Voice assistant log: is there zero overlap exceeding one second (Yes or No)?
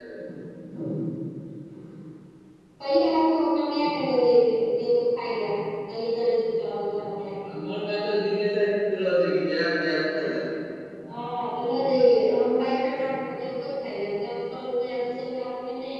Yes